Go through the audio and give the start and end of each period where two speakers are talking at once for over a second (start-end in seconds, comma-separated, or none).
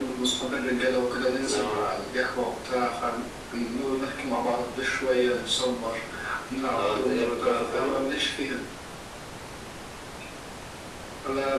6.8-8.0